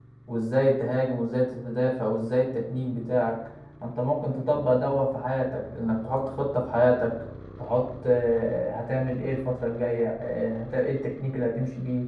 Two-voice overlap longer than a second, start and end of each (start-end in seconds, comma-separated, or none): none